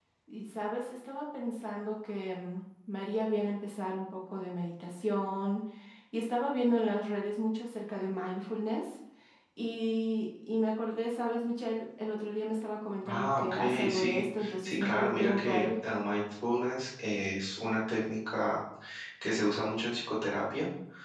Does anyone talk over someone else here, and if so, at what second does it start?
13.0 s

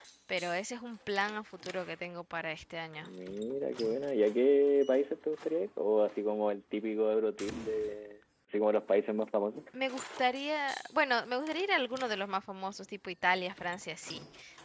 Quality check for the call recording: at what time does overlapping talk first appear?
none

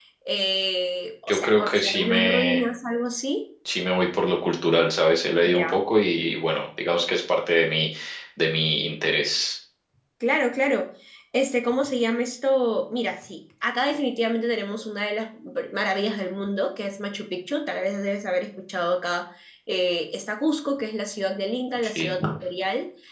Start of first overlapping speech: 1.3 s

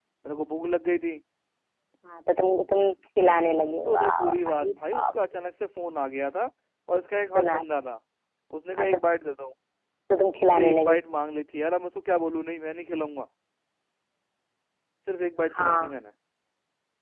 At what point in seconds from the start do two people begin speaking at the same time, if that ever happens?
3.2 s

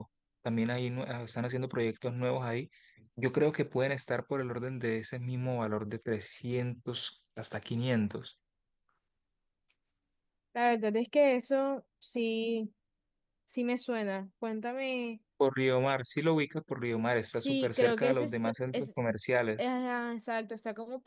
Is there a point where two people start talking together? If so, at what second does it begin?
17.3 s

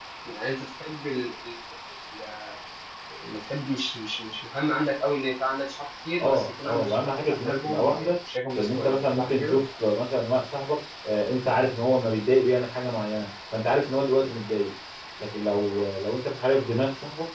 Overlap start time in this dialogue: 6.2 s

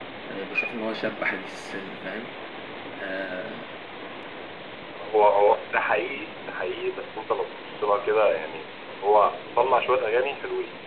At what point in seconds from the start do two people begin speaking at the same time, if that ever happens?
none

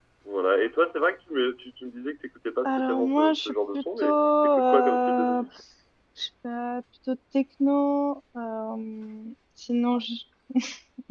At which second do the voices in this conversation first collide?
2.6 s

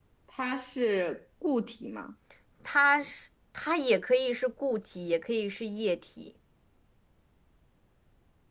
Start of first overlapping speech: none

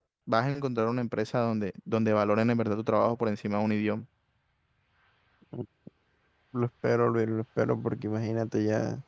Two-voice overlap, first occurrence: none

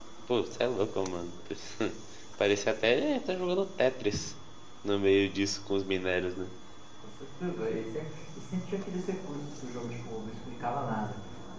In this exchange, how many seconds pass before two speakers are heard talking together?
none

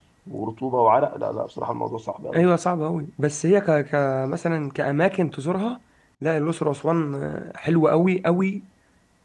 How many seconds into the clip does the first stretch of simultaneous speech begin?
none

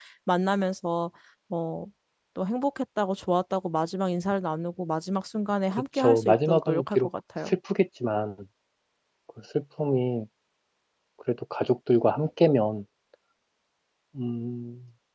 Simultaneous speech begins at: 5.7 s

